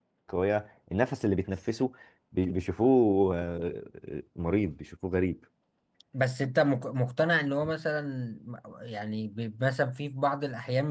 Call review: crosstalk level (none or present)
none